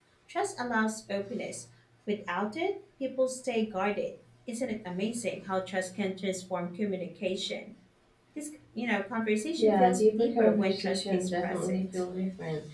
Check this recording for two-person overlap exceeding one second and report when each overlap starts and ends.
9.6-12.0

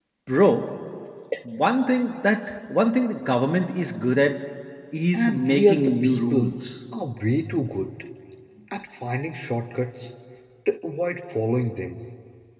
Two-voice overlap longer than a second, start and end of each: 5.1-6.5

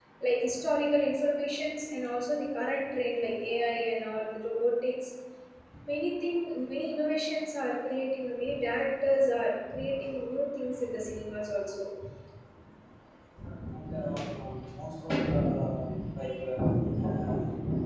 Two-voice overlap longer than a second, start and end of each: none

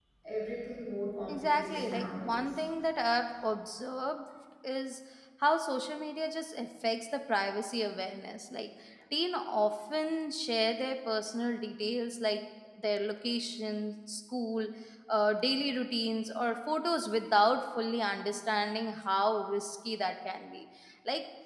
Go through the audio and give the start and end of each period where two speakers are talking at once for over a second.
1.3-2.6

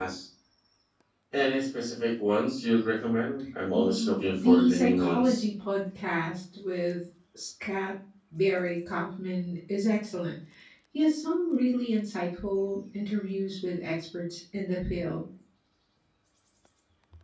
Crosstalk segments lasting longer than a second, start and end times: 3.7-5.4

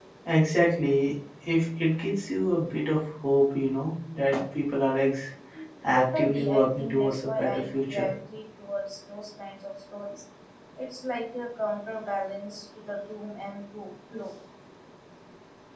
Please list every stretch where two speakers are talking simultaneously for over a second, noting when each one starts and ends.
5.9-8.1

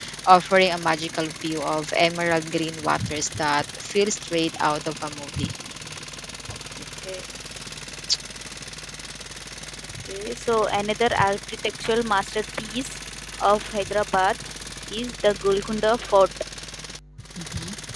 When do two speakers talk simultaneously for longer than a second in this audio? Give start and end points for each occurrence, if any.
none

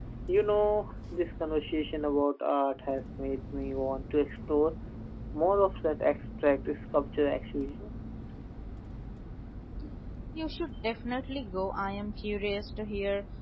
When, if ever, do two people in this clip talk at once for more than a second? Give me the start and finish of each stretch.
none

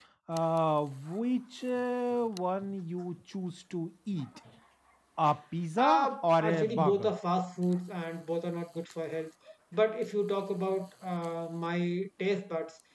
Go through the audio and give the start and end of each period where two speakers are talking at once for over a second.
5.8-7.1

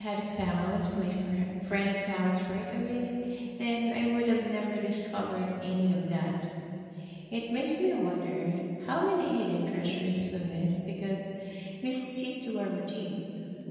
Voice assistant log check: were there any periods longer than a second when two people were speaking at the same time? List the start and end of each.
none

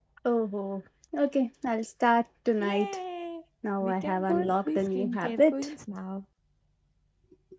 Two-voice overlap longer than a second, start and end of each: 3.8-5.7

